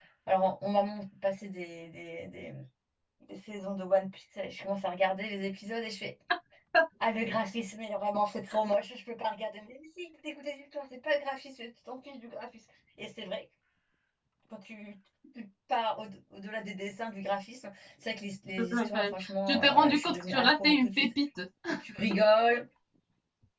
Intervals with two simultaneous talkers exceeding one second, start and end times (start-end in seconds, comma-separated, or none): 18.7-21.1